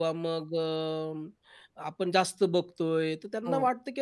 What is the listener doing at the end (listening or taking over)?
listening